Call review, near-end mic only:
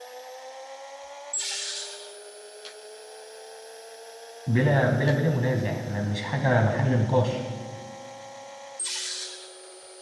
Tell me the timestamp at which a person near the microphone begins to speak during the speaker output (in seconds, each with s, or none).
4.5 s